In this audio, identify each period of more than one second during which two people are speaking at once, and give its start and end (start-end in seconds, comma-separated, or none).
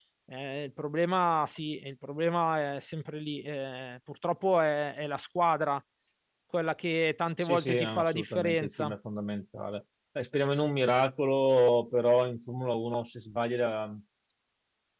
7.4-8.9